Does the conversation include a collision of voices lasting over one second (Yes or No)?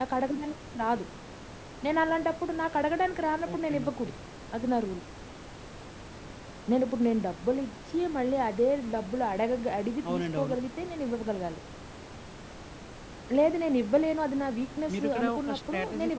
Yes